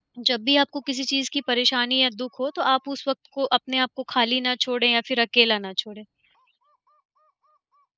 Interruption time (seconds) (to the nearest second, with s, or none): none